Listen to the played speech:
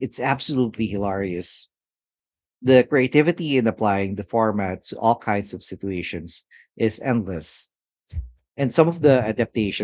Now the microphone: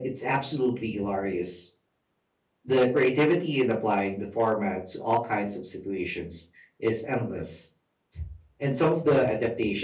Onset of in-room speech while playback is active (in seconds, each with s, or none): none